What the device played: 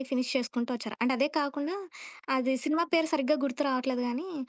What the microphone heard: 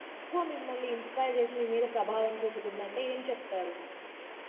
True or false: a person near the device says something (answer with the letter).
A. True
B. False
A